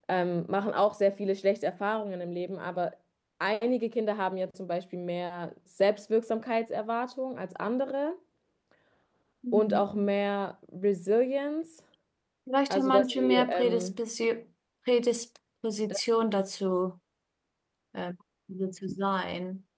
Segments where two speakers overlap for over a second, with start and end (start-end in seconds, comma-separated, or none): 12.7-13.9